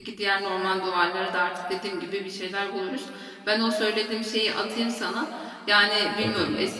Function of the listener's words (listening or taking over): listening